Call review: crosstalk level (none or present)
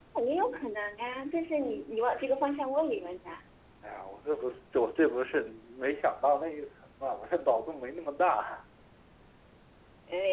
none